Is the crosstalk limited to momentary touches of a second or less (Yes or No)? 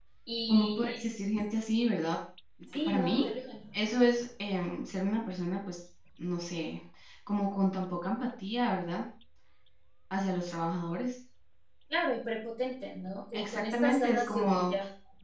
No